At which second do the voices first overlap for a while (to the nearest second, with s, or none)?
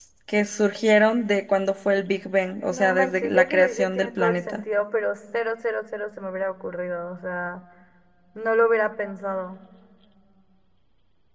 3 s